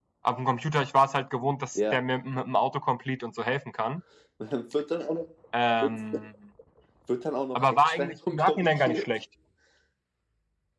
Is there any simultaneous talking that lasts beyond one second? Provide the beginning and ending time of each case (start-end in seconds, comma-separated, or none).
7.6-9.1